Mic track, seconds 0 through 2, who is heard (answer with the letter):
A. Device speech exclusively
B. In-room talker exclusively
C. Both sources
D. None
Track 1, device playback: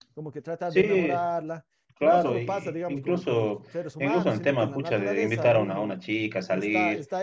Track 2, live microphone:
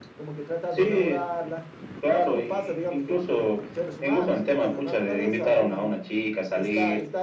A